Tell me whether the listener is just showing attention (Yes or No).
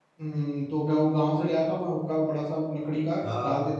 No